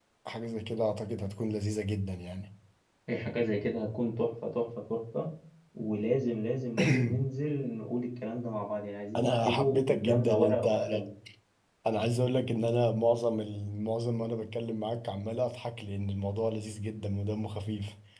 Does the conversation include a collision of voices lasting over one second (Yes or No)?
Yes